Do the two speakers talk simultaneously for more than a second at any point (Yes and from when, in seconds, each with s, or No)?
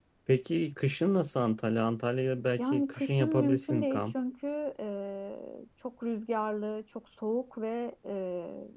Yes, from 2.6 s